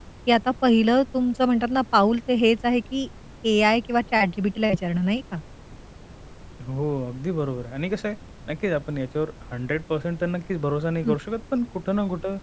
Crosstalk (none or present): none